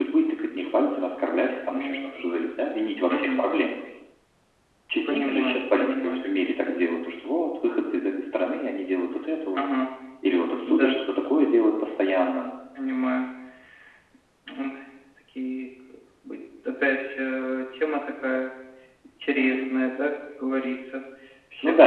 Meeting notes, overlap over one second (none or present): present